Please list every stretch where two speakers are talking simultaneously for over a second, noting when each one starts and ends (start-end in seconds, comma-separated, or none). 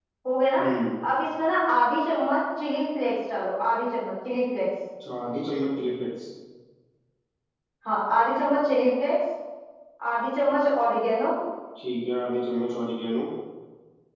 none